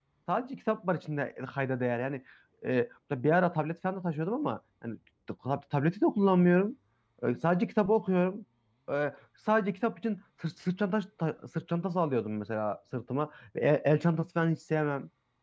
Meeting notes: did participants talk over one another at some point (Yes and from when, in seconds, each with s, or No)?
No